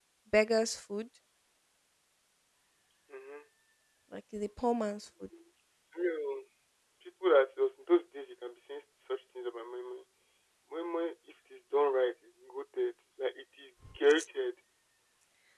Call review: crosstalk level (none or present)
none